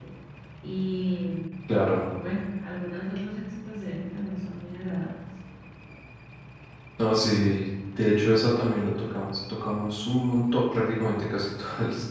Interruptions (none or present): none